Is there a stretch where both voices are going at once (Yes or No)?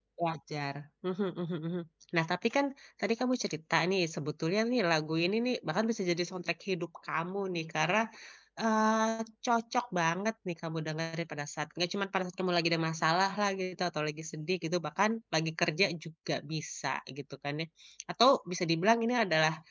No